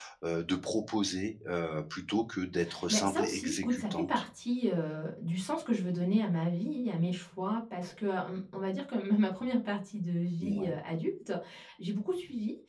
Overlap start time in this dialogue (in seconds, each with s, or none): 2.9 s